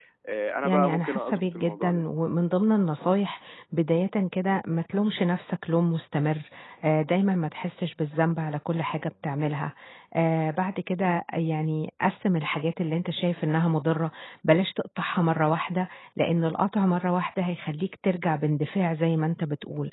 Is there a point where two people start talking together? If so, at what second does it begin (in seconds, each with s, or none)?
0.6 s